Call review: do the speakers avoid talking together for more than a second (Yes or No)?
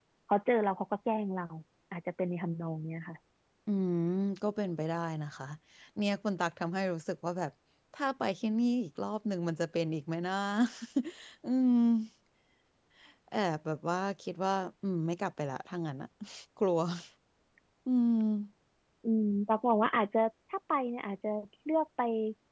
Yes